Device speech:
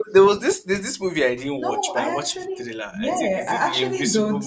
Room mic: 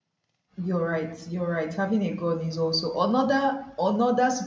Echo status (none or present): none